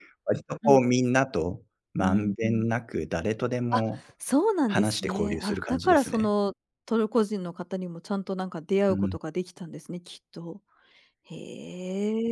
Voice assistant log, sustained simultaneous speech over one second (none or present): present